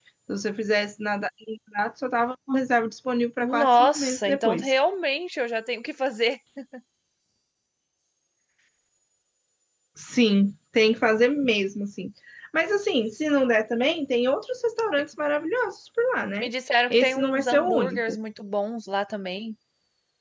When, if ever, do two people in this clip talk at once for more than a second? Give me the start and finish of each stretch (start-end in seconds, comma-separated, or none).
3.4-4.7, 16.9-18.2